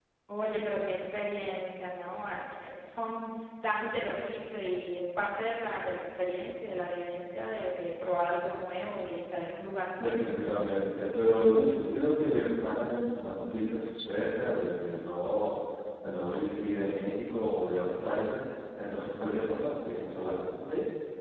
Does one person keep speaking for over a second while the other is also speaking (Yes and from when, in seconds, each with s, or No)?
No